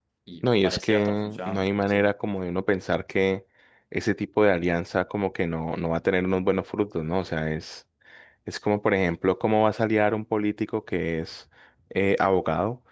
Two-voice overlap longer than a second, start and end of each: 0.6-2.1

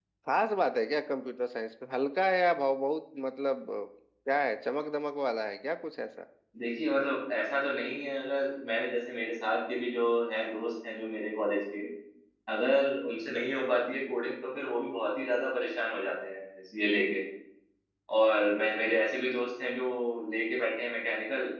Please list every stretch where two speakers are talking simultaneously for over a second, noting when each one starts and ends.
none

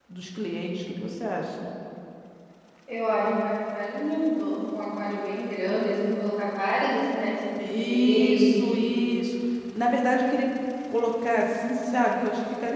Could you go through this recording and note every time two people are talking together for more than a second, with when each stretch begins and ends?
7.6-9.2

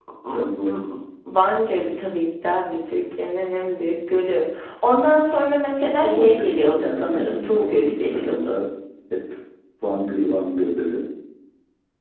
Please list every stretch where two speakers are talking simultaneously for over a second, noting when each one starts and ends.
6.0-8.3

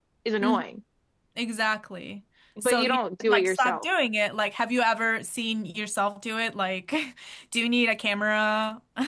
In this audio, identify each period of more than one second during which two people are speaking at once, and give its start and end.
2.6-3.8

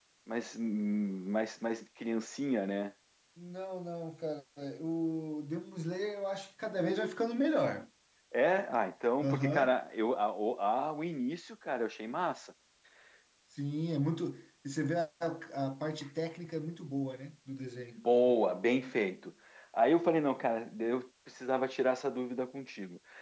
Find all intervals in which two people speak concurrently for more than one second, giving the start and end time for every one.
none

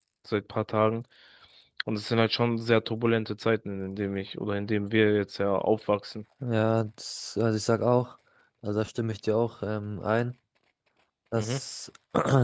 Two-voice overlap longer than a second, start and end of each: none

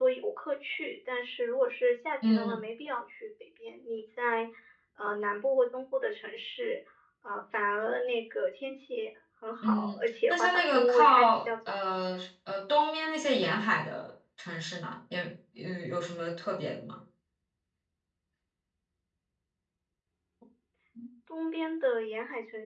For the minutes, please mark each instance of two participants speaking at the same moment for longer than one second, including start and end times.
9.6-11.8

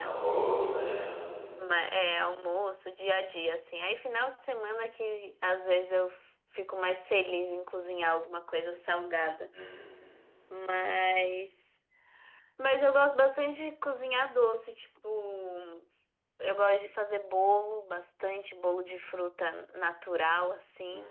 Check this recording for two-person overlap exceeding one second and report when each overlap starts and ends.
none

